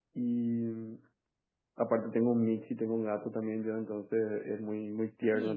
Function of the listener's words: listening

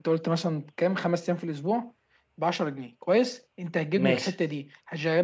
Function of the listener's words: listening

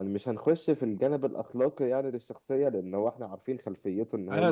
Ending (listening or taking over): taking over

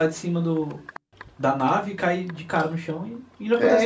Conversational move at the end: taking over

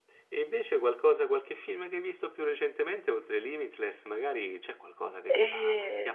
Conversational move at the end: listening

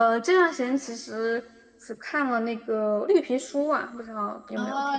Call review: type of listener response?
taking over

